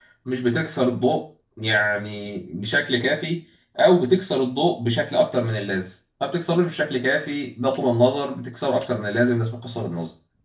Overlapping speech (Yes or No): No